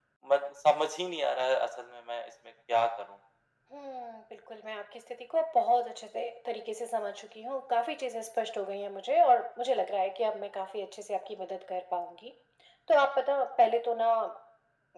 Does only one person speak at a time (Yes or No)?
Yes